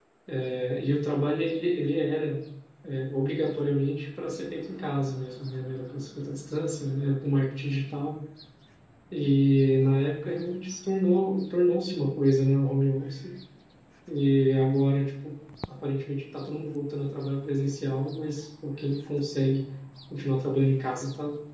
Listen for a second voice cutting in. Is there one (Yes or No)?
No